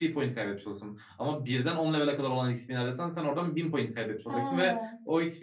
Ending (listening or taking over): listening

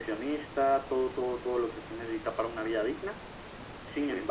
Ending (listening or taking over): listening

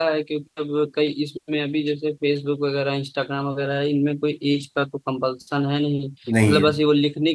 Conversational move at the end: listening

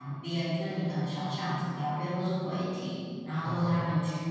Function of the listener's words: listening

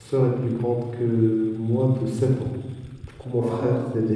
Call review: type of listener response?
listening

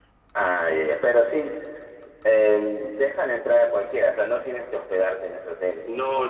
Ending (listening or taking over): taking over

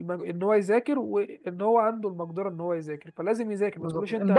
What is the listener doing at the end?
taking over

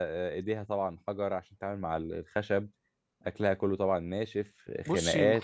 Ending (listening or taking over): taking over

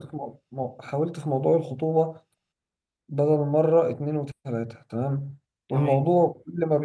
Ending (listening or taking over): listening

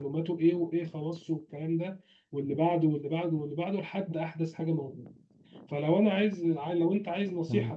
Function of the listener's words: listening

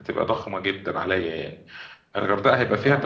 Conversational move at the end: listening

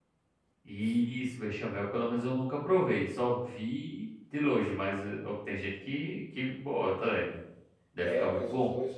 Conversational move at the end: taking over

